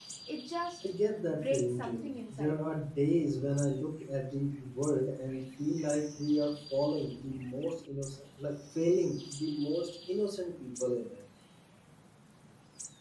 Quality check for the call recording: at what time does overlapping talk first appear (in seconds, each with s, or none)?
1.3 s